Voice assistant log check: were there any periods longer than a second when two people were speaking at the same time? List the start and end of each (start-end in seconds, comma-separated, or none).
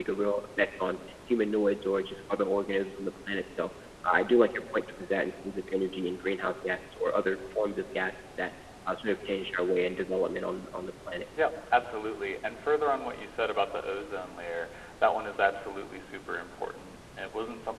none